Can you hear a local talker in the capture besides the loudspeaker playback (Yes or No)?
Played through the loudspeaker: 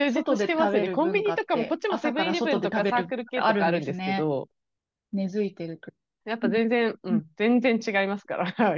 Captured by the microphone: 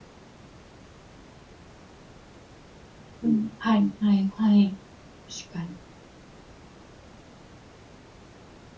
Yes